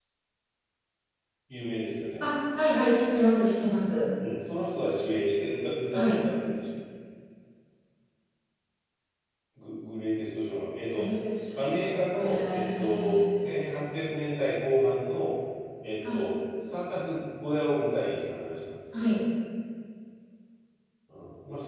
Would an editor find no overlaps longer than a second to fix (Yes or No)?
No